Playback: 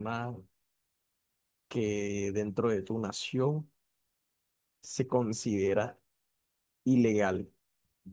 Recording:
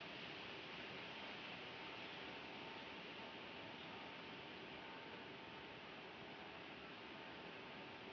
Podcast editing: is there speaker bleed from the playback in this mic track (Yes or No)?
No